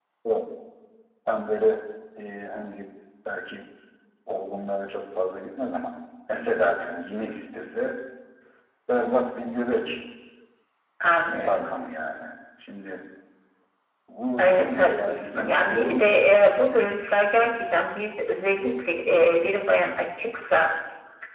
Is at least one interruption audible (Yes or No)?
Yes